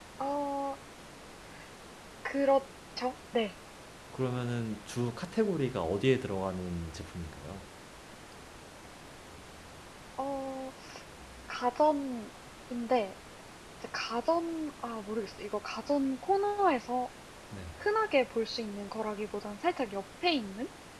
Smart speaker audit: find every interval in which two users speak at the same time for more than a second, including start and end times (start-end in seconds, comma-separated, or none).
none